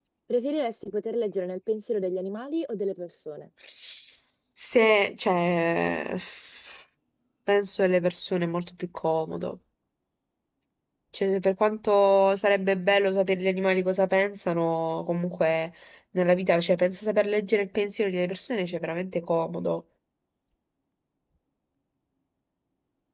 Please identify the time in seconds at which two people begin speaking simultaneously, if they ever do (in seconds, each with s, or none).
none